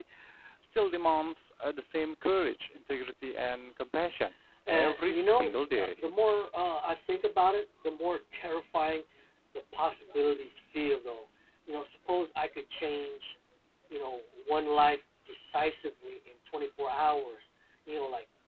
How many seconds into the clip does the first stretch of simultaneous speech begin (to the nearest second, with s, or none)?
5 s